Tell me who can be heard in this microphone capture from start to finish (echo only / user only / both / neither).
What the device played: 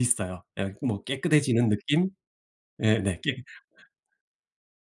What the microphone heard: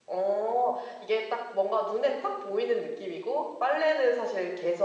user only